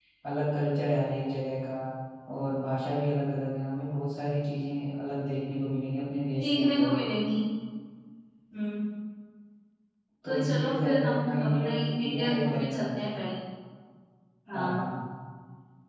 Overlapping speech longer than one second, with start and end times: 10.2-13.1

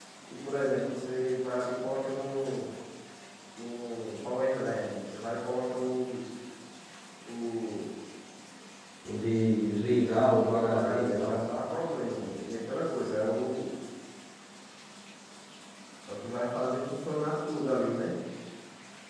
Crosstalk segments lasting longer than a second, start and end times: 10.0-11.4

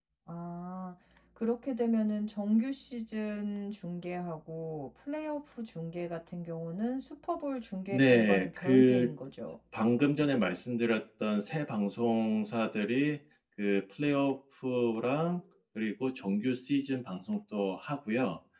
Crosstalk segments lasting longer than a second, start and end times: 7.9-9.2

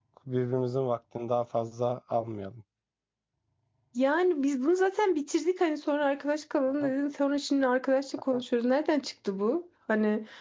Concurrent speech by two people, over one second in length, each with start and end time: none

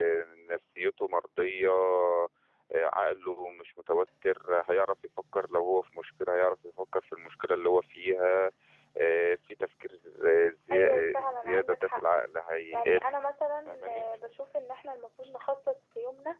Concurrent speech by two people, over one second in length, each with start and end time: 10.7-12.0

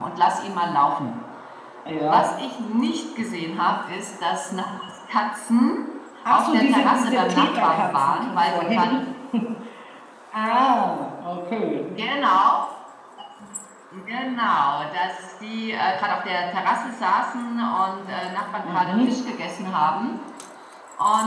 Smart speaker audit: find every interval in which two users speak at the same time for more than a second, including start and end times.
6.2-9.0

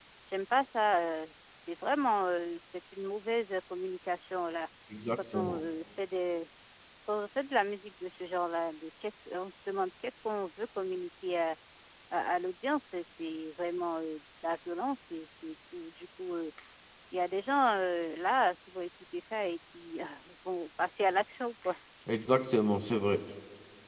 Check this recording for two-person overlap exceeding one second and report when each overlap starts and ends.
none

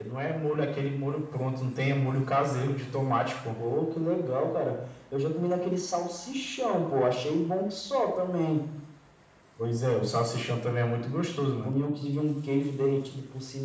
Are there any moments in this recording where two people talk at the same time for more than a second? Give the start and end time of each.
none

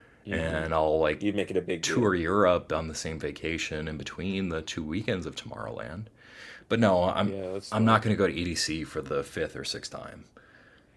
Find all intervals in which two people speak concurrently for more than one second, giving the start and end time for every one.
none

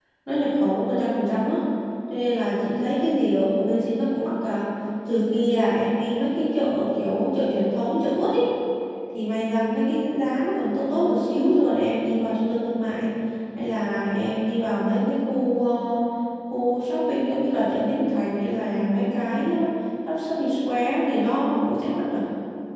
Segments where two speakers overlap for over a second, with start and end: none

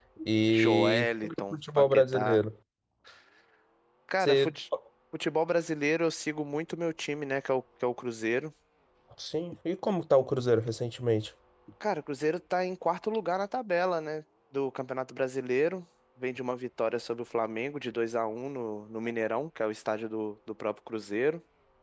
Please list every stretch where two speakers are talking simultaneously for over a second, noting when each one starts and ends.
0.6-2.4

